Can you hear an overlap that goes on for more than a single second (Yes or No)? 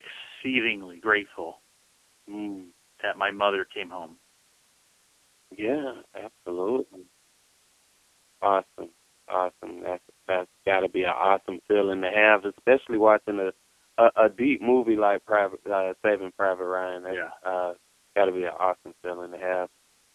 No